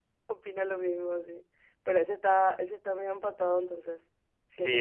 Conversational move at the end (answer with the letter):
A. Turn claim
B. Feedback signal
A